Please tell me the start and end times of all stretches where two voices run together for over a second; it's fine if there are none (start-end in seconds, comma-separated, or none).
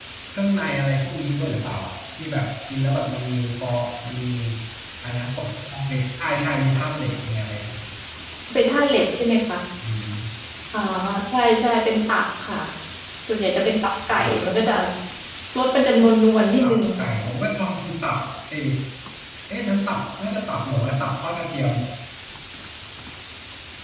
none